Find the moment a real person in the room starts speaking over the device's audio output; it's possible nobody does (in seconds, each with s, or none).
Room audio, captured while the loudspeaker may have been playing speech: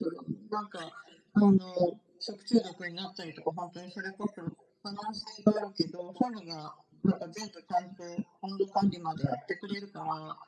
none